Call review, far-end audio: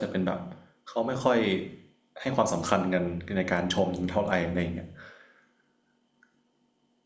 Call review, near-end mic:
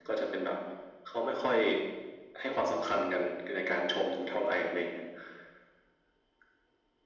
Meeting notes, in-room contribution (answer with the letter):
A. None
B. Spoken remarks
A